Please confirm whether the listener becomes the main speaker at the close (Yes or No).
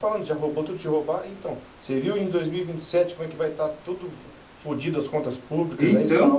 No